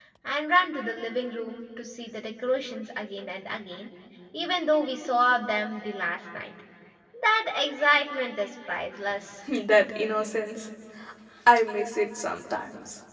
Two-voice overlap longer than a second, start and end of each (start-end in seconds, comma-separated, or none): none